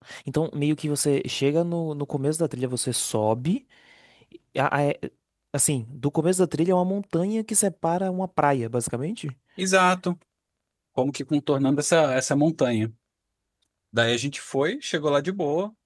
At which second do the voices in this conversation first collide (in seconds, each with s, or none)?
none